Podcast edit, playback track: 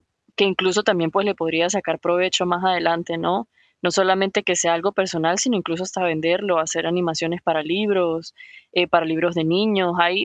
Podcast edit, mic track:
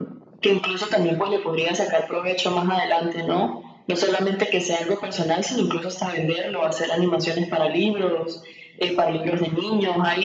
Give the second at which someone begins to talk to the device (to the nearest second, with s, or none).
none